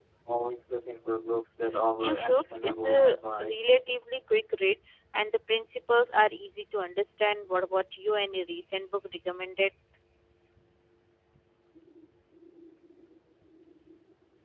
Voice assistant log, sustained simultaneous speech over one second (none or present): present